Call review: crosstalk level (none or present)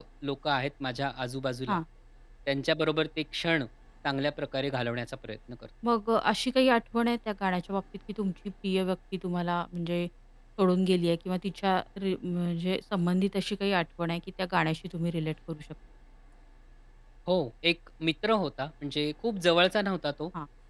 none